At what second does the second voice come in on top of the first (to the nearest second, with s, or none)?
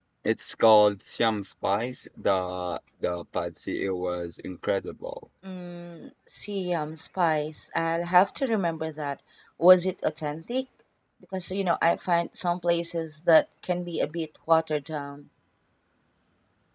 none